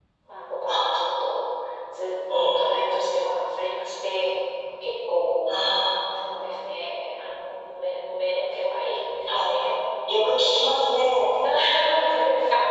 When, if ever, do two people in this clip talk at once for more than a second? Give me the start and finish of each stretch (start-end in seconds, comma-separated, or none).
none